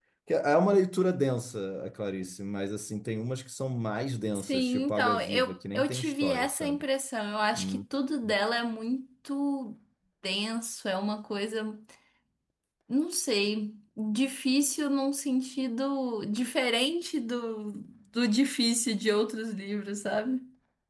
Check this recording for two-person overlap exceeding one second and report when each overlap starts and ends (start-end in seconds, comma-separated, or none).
4.3-6.8